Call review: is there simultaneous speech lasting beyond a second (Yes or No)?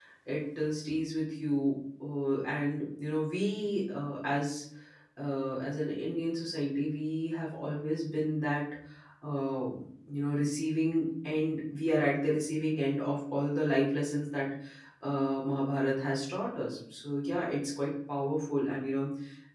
No